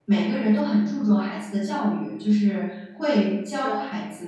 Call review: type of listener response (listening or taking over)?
listening